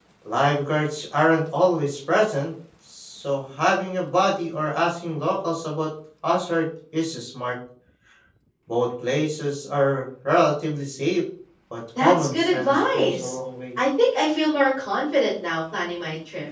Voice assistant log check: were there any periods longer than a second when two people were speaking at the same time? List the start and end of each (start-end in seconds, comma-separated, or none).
12.0-13.4